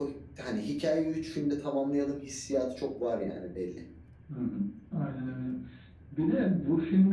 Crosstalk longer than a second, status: none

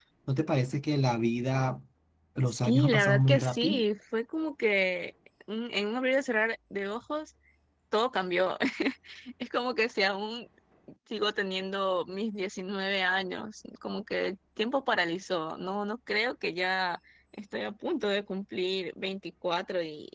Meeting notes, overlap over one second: present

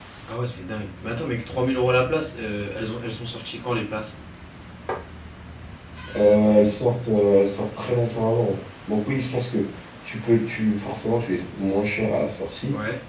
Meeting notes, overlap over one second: none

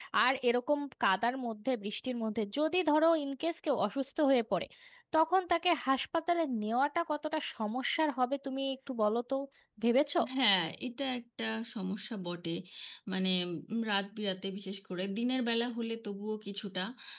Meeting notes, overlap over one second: none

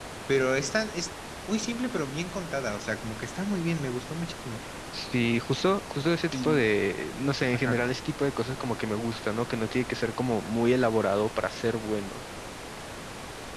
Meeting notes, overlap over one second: none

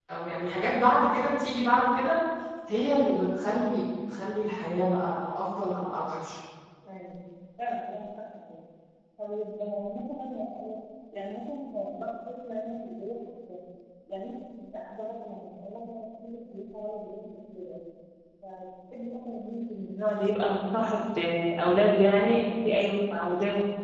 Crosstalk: none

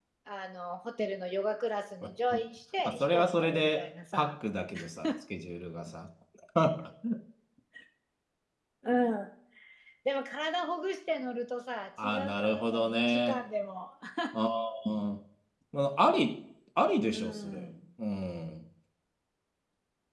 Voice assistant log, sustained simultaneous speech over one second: present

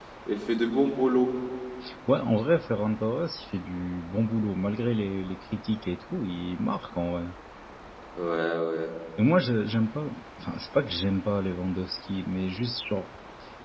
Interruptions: none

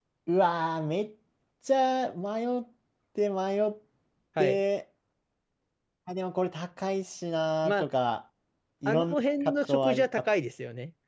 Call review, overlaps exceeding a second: present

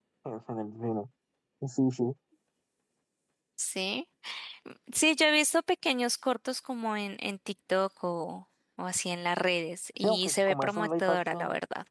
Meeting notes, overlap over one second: present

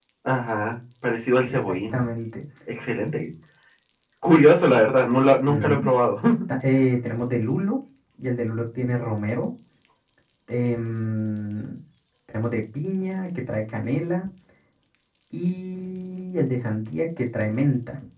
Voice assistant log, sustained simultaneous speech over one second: none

